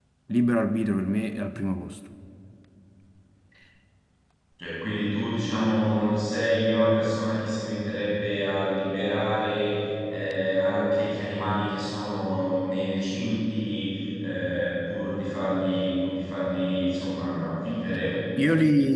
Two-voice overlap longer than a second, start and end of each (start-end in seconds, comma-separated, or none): none